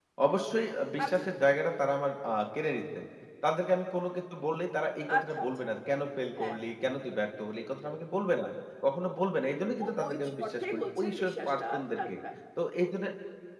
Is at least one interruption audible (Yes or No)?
Yes